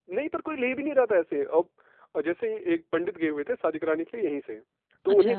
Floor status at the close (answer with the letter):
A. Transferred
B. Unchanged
B